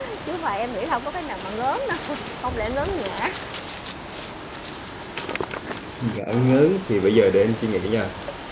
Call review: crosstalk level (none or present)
none